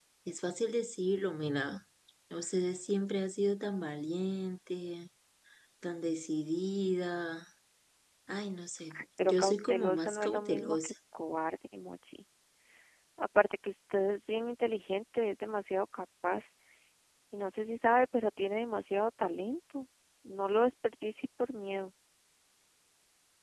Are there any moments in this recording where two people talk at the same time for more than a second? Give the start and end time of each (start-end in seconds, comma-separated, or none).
8.9-10.9